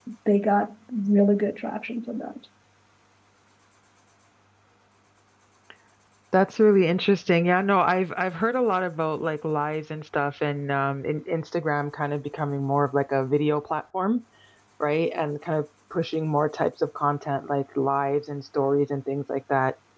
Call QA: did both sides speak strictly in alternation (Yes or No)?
Yes